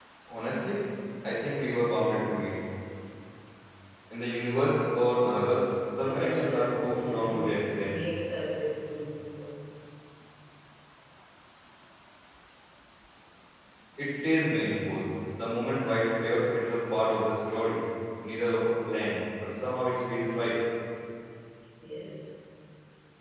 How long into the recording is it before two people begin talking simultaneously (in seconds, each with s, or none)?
6.0 s